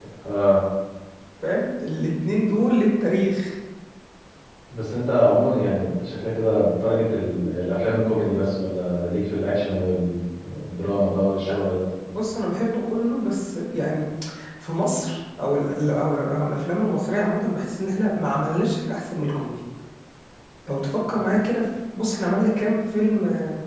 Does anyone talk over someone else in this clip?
No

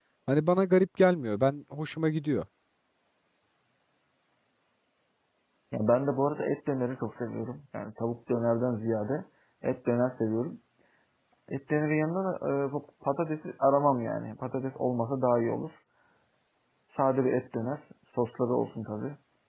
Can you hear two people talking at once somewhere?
No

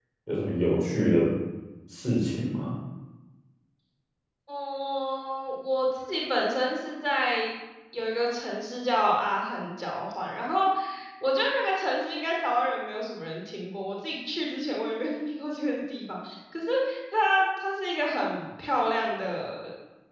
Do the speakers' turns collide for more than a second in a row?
No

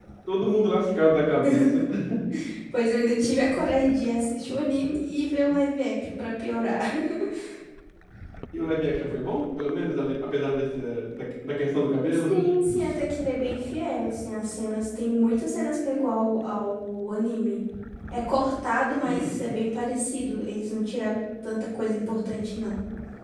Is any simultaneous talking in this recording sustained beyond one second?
No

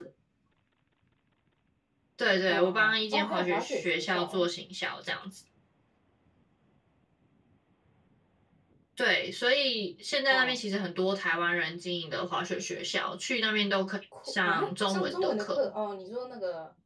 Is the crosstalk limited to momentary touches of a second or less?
No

